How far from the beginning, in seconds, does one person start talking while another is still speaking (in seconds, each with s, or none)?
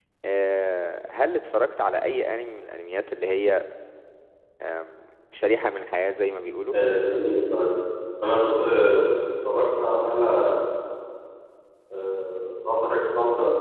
none